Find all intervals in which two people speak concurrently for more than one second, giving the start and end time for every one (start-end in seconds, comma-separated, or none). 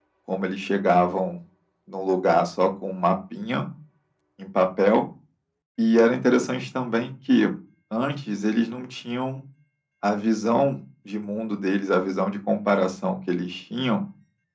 none